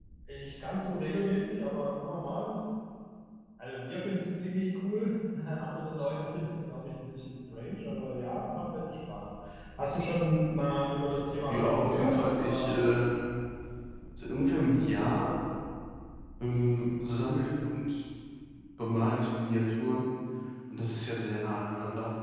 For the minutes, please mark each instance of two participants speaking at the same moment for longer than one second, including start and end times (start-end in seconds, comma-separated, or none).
11.5-12.8